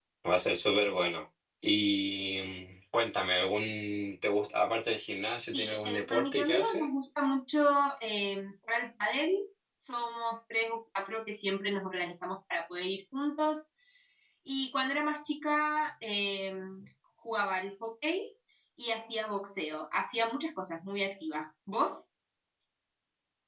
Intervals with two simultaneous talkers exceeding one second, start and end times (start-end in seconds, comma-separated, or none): 5.5-6.9